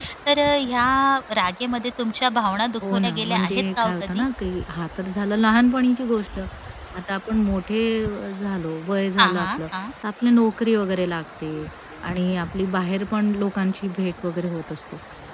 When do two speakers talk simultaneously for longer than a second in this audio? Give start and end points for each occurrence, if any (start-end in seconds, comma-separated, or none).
2.9-4.2